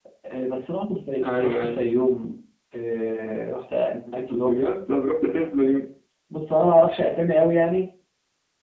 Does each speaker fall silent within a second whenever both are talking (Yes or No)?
Yes